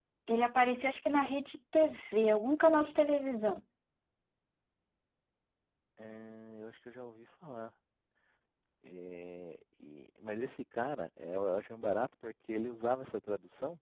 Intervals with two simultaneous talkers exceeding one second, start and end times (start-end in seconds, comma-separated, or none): none